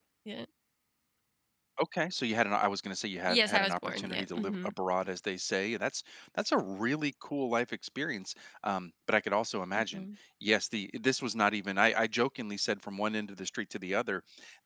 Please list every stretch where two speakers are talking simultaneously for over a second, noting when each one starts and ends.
3.3-4.7

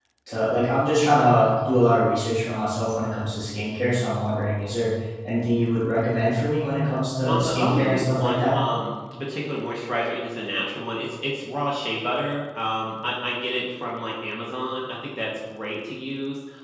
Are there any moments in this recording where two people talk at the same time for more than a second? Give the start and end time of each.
7.3-8.6

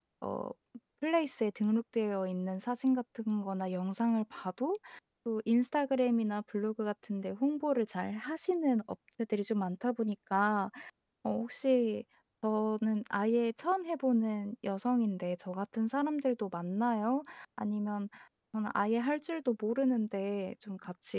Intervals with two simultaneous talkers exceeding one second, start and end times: none

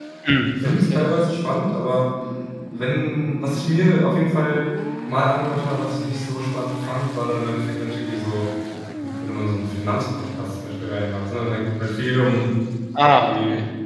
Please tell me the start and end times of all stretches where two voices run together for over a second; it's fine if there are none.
none

